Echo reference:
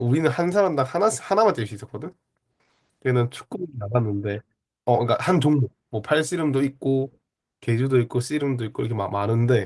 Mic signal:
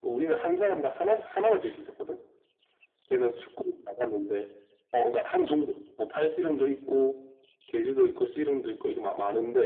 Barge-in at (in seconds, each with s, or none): none